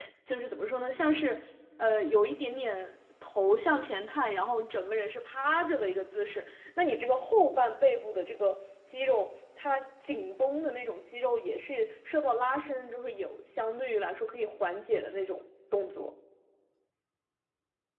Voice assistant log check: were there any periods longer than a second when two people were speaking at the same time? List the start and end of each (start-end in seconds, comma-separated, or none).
none